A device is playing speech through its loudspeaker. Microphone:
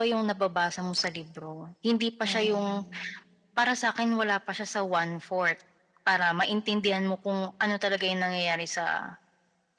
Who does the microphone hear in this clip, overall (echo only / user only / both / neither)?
both